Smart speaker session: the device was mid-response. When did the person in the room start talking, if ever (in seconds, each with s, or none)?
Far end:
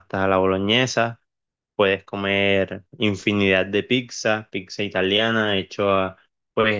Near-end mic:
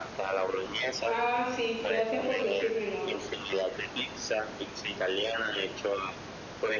1.0 s